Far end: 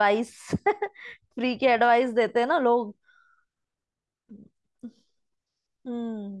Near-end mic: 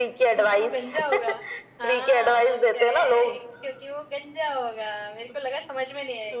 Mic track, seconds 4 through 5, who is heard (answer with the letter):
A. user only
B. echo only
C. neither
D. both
A